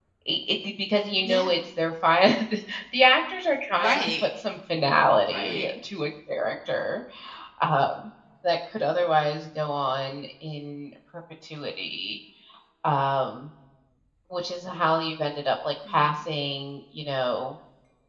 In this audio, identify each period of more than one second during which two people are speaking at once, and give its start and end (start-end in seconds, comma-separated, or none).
none